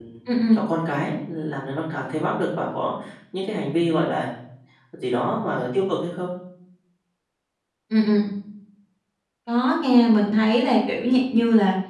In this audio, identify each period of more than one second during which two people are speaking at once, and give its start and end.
none

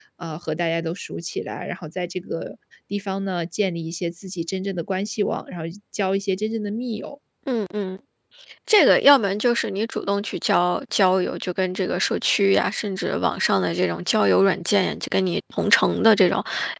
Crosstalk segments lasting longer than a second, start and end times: none

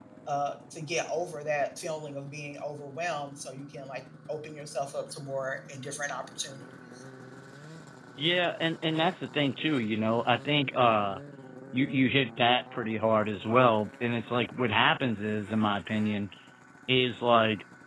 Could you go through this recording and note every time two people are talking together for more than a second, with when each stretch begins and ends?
none

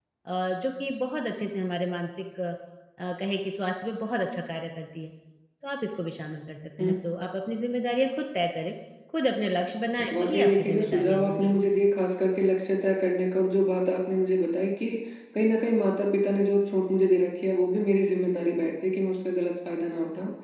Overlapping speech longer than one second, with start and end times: 10.2-11.5

